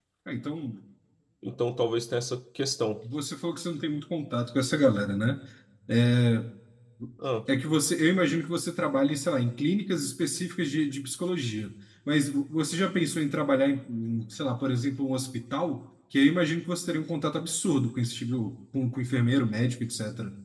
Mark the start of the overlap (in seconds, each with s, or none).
none